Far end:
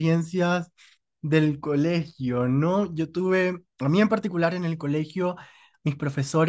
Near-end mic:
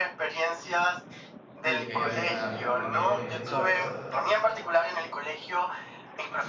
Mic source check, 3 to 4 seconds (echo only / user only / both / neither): both